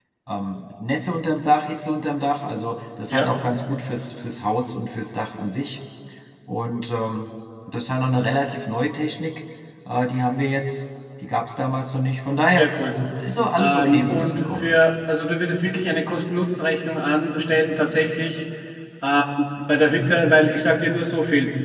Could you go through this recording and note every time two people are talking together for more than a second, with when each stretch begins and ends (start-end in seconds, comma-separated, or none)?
13.6-14.8